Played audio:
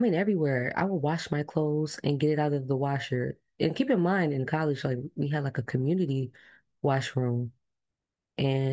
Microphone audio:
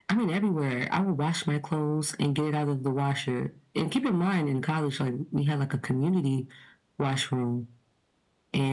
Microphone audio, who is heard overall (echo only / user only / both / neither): echo only